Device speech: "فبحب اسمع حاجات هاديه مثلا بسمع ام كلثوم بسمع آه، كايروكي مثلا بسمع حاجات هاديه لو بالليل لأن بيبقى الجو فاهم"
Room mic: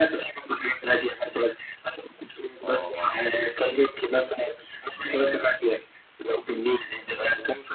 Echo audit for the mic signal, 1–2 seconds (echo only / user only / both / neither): echo only